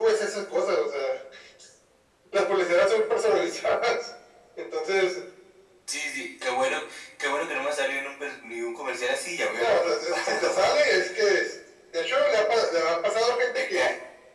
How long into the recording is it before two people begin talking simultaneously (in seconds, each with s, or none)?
9.6 s